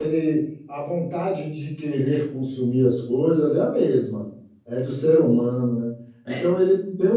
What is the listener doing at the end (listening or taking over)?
listening